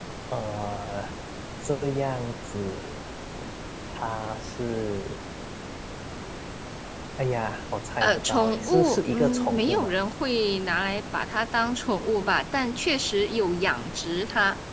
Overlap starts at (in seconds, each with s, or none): 8.0 s